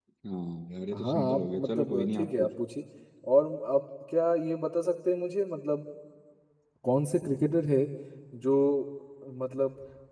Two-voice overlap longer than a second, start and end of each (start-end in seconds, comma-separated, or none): 1.0-2.5